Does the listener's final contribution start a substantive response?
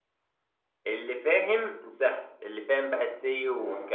No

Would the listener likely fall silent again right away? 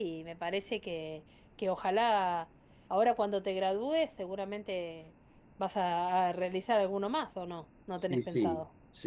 No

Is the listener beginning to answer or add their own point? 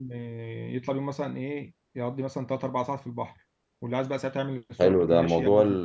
Yes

